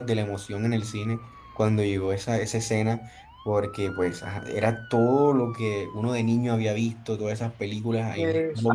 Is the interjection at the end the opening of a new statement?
No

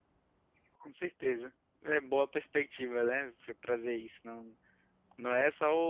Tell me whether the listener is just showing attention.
Yes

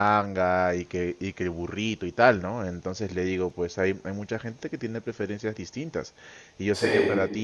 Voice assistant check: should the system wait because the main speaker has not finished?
Yes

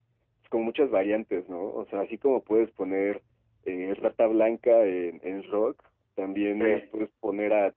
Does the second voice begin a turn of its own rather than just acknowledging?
No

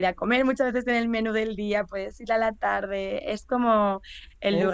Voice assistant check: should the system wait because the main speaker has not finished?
Yes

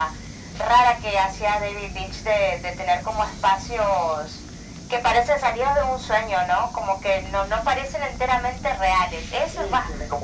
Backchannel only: No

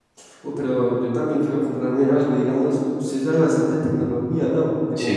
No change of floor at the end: No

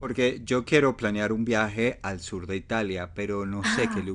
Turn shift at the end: No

